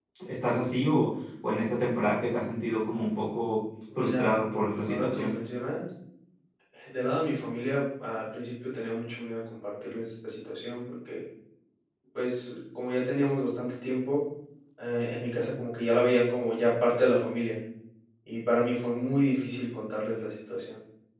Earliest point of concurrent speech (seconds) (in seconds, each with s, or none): 3.9 s